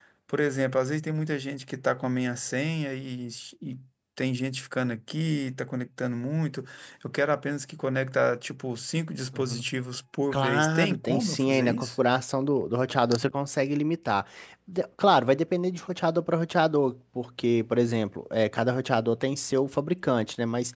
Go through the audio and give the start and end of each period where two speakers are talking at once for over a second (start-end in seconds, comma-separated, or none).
10.3-12.0